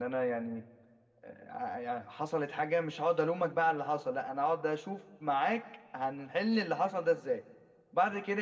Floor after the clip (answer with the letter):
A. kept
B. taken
A